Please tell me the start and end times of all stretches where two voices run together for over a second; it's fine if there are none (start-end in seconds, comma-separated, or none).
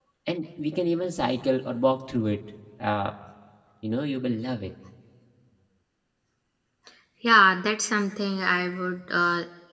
none